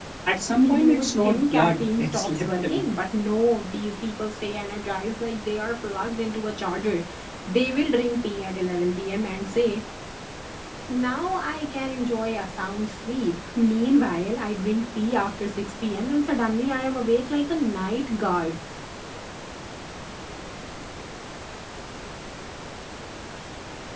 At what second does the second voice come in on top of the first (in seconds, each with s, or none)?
0.6 s